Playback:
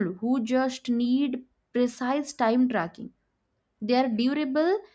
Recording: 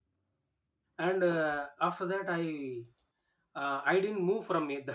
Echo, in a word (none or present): none